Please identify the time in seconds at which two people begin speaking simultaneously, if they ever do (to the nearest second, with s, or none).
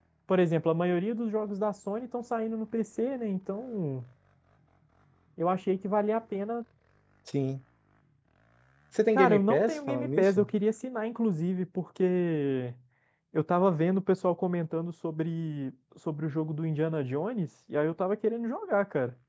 9 s